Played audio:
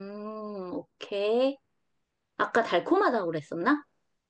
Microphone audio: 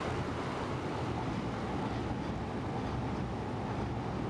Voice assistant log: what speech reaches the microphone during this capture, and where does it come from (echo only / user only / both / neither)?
neither